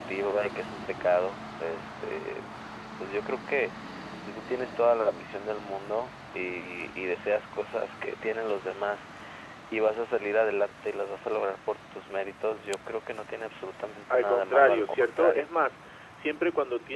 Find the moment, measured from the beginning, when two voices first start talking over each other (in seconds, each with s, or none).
14.1 s